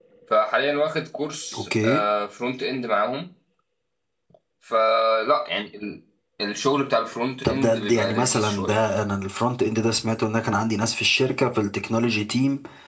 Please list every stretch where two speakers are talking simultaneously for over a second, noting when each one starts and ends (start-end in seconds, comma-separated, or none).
7.4-8.8